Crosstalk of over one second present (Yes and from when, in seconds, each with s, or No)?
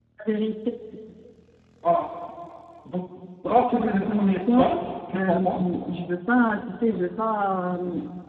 Yes, from 3.5 s